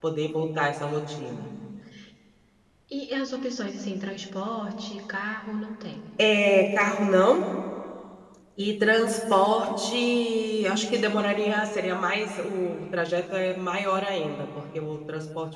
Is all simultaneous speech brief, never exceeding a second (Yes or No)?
Yes